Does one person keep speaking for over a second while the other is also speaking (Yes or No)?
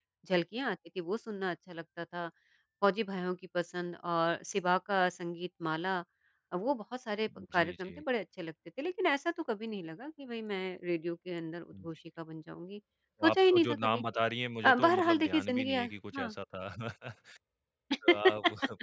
Yes